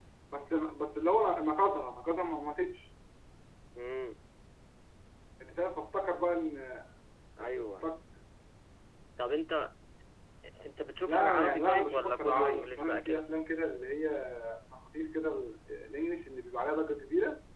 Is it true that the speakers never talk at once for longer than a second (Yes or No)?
No